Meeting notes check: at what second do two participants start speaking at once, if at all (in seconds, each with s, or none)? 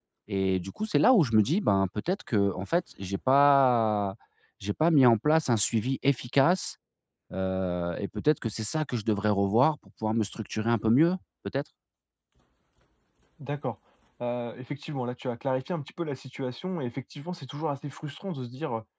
none